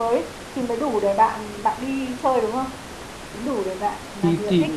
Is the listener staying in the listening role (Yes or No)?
No